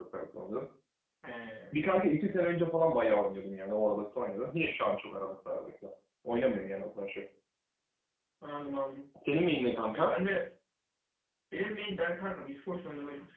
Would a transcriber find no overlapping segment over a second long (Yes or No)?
Yes